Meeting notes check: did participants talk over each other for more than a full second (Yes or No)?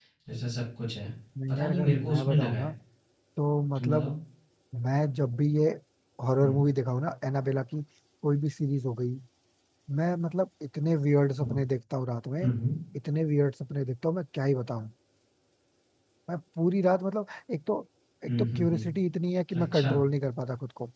Yes